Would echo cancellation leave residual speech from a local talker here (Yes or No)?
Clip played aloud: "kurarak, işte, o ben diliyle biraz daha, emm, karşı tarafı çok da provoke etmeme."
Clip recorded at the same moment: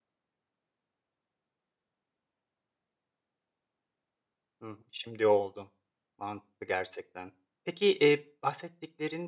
Yes